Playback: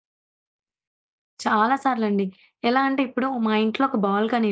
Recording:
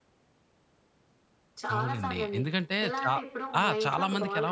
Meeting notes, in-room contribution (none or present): present